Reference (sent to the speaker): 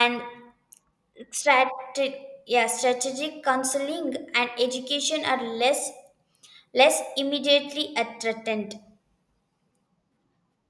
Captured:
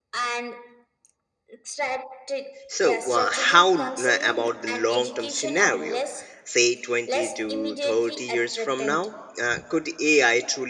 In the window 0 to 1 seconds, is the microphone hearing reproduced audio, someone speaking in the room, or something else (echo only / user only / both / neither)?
echo only